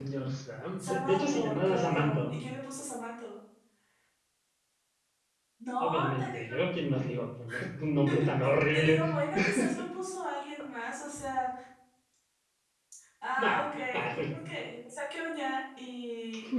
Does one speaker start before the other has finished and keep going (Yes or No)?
Yes